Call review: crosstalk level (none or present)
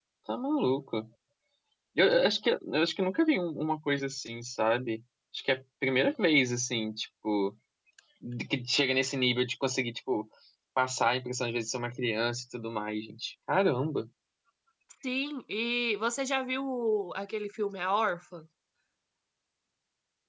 none